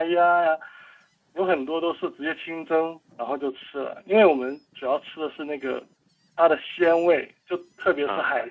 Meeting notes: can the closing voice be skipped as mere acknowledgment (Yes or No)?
Yes